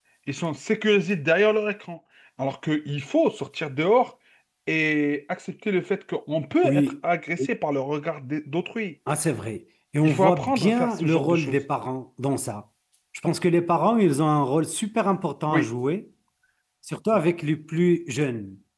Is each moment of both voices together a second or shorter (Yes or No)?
No